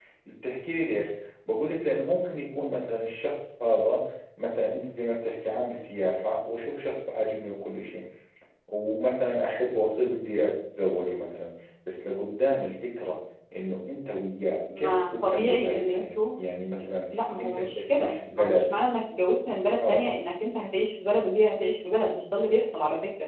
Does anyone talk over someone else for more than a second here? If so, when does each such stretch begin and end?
14.8-16.2, 17.4-18.7

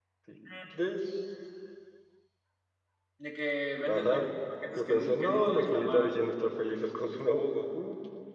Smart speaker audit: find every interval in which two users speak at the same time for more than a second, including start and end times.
4.8-6.2

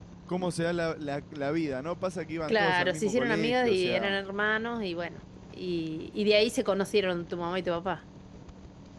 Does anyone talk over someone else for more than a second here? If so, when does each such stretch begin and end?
2.5-4.2

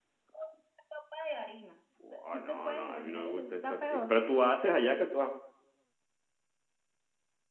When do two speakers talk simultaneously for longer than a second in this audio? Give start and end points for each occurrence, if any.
2.0-4.2

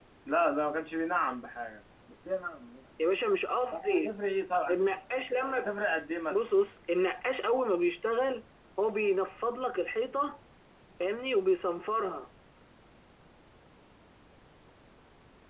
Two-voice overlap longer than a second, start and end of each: none

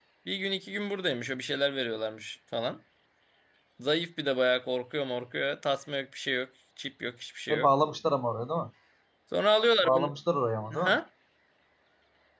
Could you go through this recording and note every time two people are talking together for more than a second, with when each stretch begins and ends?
none

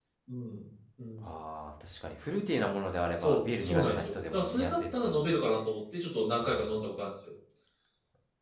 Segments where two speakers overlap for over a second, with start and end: 3.2-5.3

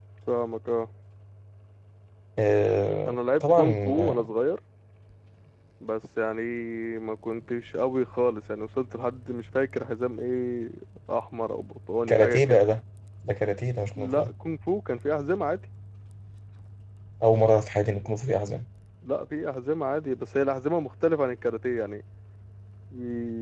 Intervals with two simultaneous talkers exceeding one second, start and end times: 3.0-4.3

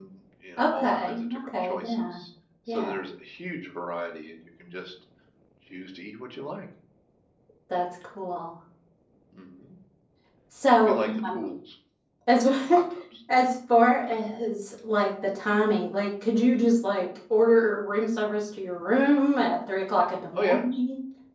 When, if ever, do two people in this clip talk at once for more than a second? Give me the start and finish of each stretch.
0.6-2.2

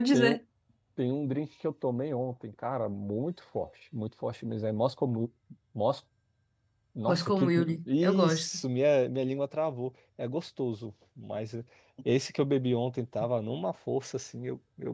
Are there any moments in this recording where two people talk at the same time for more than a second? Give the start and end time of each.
7.1-8.5

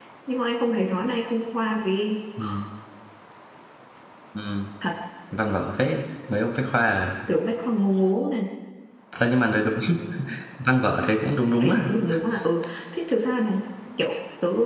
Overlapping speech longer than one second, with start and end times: none

